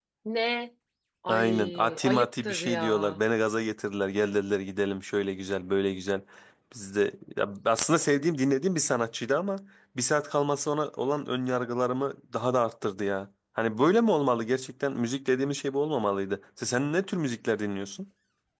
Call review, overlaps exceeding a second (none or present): present